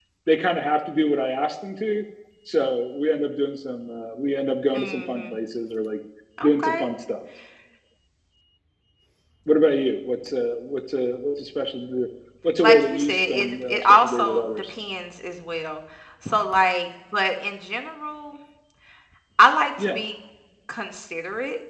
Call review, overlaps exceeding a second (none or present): present